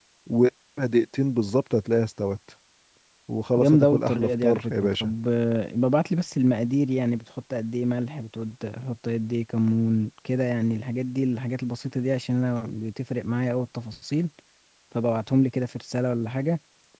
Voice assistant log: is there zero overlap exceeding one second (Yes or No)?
No